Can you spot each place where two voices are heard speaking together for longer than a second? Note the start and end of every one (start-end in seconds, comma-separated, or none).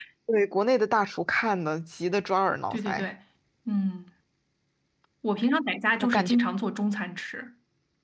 none